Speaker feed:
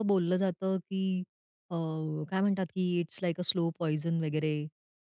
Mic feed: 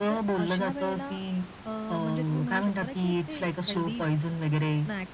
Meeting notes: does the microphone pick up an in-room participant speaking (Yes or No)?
Yes